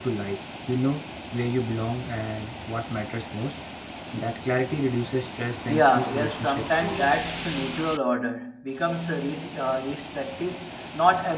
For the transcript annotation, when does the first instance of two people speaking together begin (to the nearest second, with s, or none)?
6 s